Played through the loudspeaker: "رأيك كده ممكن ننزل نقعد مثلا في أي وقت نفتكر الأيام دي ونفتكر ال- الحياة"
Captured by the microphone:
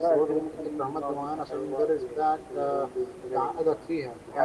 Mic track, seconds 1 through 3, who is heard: both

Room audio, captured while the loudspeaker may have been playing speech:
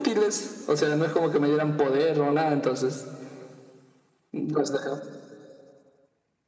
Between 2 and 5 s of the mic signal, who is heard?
echo only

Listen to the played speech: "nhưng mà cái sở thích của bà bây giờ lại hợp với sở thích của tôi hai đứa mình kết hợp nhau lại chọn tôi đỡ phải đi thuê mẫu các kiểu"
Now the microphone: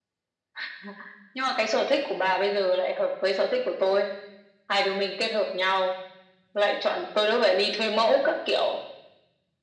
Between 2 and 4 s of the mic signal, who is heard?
echo only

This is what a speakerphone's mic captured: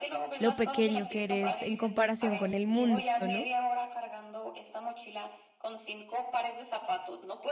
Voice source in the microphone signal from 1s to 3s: both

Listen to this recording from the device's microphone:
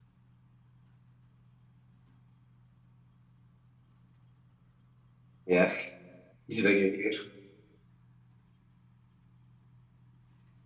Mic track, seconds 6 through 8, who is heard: user only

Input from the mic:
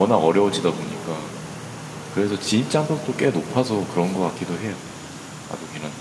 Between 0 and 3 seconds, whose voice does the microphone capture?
user only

